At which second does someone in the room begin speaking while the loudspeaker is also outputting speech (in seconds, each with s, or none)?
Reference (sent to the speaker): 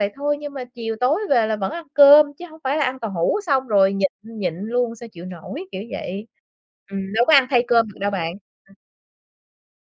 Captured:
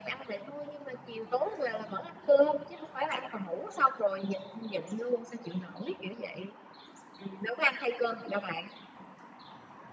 none